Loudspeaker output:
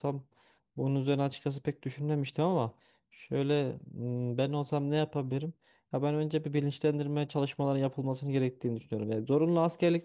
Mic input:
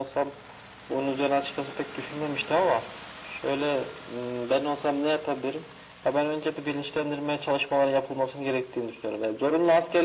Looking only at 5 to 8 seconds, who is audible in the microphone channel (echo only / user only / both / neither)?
echo only